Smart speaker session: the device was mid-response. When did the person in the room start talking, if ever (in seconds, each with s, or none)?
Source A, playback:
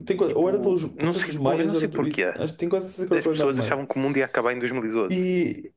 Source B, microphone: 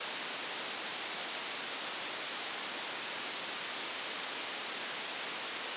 none